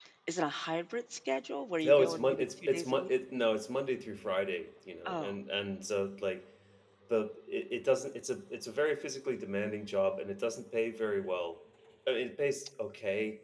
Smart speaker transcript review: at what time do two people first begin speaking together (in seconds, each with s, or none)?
1.8 s